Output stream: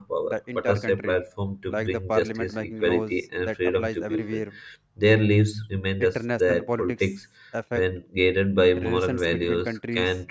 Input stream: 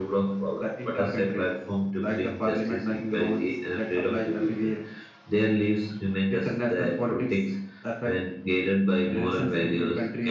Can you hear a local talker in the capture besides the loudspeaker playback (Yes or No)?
No